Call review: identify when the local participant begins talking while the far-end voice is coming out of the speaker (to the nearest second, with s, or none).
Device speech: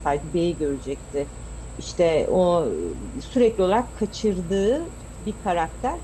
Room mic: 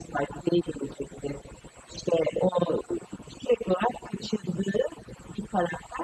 none